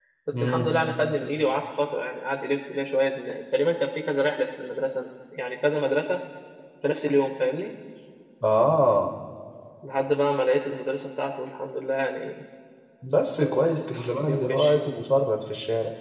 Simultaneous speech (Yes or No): Yes